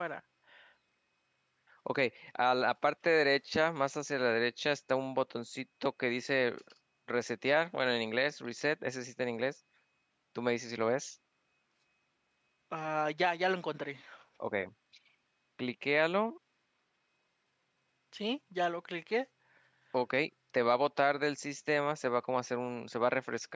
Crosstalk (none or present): none